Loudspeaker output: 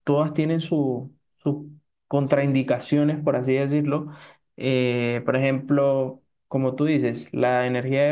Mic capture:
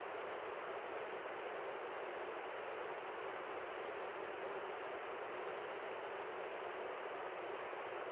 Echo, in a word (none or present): none